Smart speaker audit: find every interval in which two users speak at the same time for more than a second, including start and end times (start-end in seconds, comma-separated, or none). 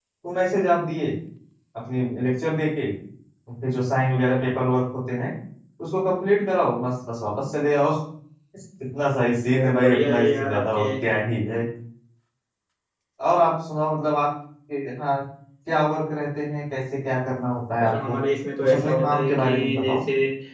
9.6-10.8, 18.6-20.0